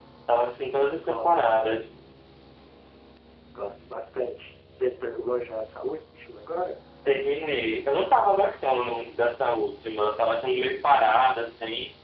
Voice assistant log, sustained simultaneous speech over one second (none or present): none